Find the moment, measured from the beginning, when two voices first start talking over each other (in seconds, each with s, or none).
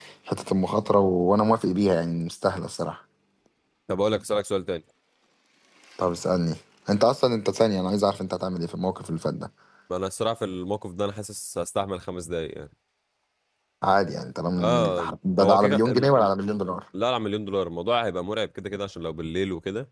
14.6 s